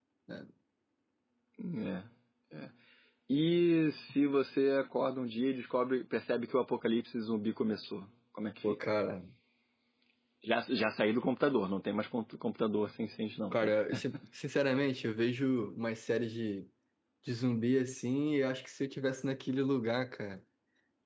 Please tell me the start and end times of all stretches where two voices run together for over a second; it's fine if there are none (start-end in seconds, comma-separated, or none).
none